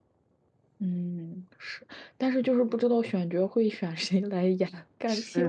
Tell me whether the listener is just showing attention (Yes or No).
Yes